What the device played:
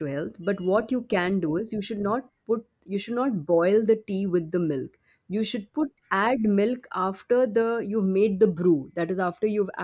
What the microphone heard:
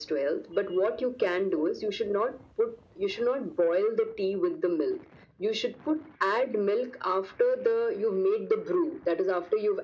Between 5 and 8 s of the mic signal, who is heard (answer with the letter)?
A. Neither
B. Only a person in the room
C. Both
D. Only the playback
D